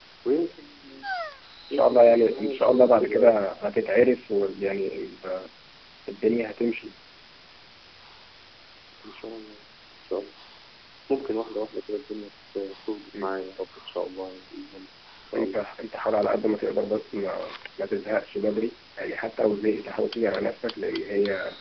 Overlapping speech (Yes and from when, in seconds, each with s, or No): Yes, from 1.7 s